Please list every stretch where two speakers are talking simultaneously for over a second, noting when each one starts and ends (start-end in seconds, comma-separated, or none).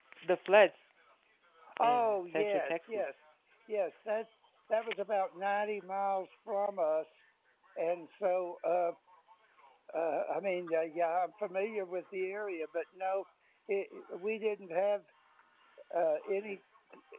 1.8-3.0